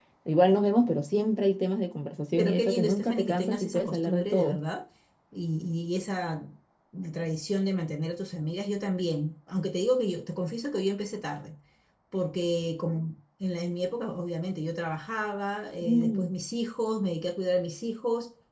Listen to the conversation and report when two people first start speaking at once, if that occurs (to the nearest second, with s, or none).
2 s